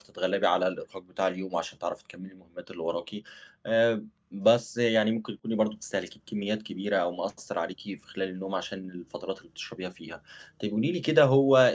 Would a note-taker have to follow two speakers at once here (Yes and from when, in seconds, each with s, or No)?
No